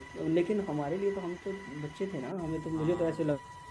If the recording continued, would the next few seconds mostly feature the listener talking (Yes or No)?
No